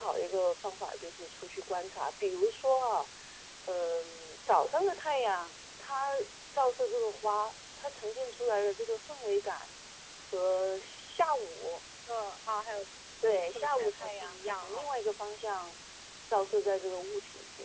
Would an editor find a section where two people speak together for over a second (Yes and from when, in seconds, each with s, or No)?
Yes, from 13.2 s